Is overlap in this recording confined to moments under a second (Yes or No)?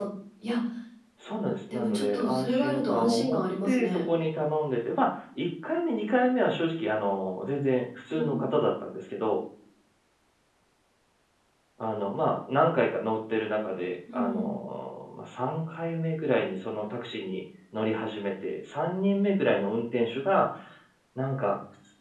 No